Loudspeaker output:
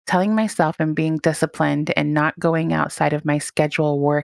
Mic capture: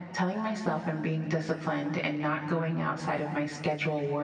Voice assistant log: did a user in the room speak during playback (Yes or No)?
No